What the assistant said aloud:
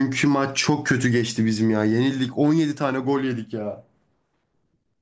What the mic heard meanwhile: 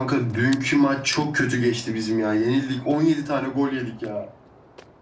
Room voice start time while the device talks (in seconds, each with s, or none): none